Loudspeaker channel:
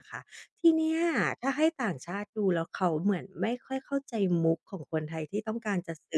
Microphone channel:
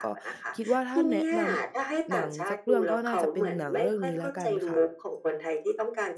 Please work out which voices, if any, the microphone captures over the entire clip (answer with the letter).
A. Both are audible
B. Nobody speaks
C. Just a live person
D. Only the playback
A